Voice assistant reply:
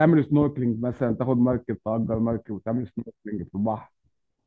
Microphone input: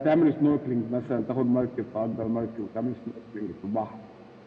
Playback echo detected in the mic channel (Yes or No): Yes